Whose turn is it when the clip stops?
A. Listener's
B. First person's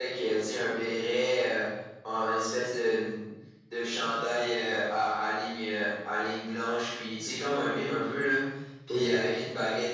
B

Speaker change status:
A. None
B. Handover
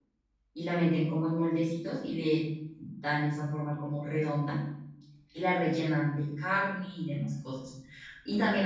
A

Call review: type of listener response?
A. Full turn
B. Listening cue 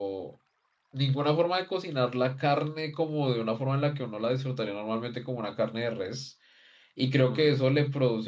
B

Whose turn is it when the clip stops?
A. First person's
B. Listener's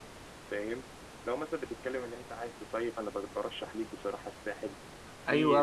B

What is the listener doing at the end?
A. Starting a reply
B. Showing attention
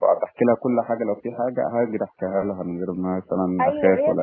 A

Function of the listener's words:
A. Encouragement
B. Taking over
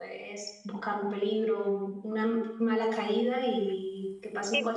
B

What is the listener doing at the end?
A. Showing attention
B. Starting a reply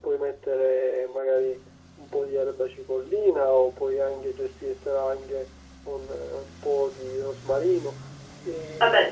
A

